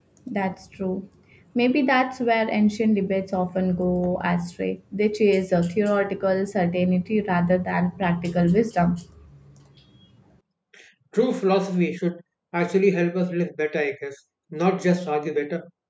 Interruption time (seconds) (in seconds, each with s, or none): none